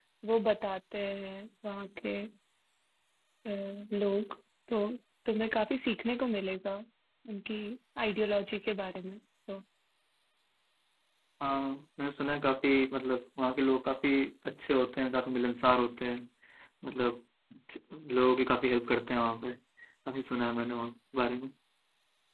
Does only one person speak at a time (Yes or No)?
Yes